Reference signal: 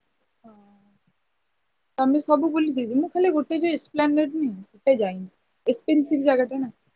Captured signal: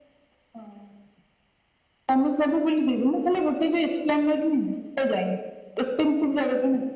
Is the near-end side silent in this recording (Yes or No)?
Yes